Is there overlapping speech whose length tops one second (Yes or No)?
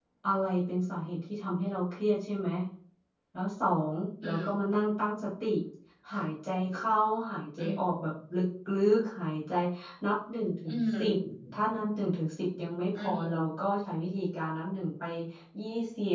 No